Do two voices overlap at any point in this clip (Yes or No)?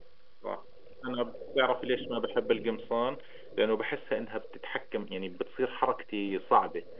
No